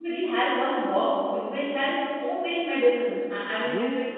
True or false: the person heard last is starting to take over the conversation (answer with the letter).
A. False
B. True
B